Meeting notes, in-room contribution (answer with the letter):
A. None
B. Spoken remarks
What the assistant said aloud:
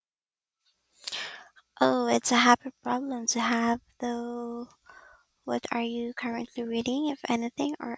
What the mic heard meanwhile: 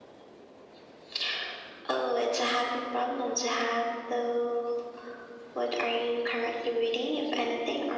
A